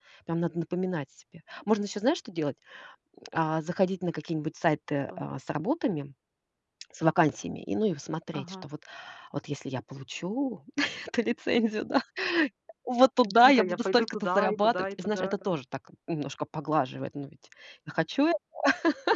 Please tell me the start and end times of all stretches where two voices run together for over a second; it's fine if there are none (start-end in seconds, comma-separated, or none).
13.4-15.3